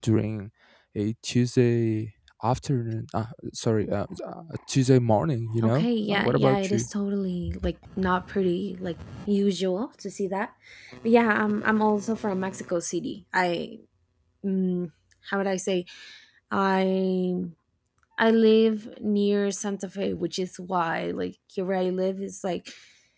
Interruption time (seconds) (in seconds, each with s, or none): 5.6 s